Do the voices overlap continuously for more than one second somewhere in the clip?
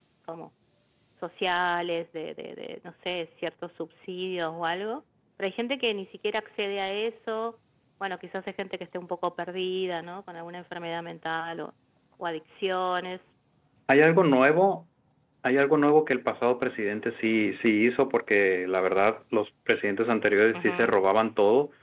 No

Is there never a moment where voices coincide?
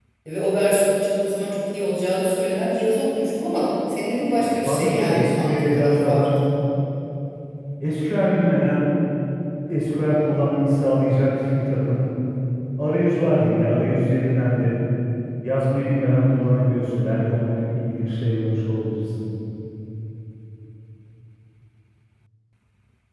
No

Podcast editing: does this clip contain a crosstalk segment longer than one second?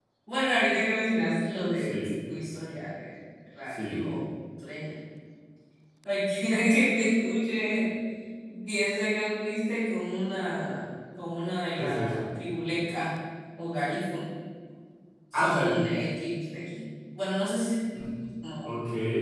No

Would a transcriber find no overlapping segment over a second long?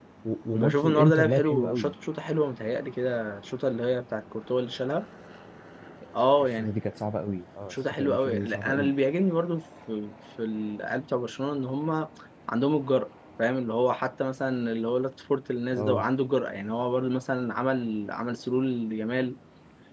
No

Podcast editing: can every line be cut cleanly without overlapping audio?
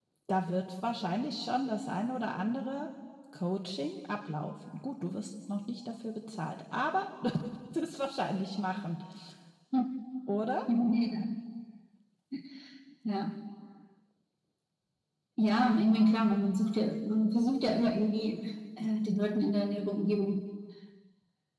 Yes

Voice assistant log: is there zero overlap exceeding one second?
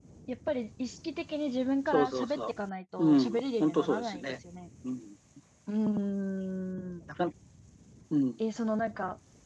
No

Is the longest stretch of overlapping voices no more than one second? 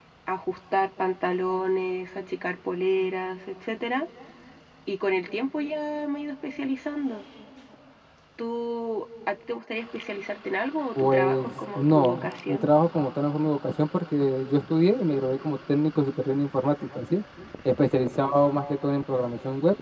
No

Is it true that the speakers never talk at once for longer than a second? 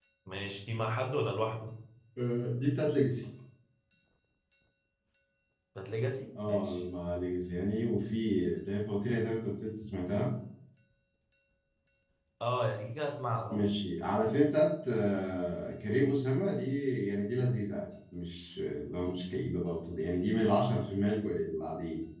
Yes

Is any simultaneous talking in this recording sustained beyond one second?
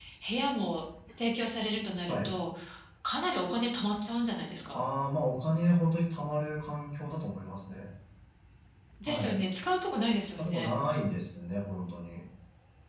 No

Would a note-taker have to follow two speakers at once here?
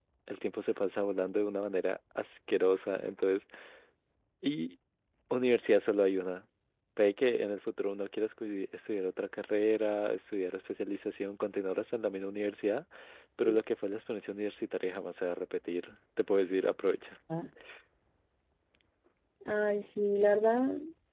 No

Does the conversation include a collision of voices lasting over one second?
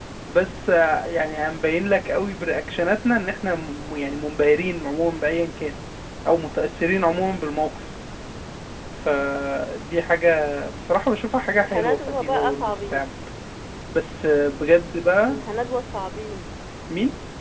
Yes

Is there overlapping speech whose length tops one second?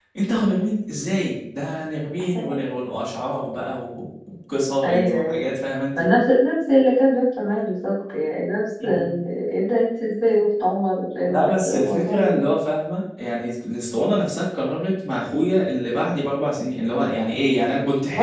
Yes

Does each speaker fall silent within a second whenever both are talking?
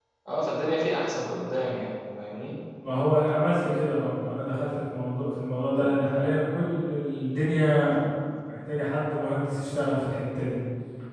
Yes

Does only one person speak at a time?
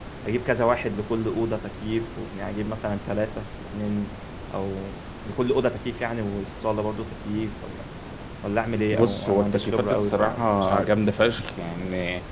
No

